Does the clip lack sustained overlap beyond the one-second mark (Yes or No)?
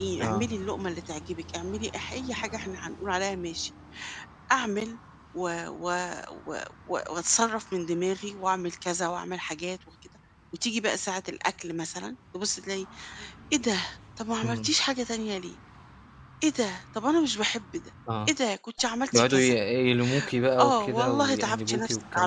No